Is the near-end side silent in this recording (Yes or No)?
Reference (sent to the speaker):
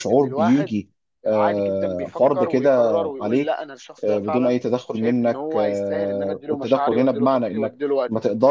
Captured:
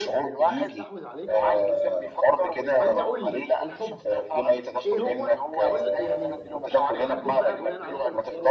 No